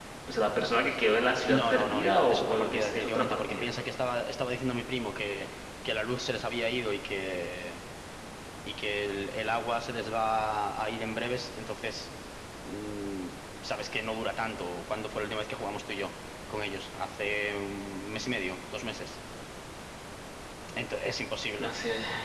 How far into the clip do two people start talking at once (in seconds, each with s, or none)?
1.5 s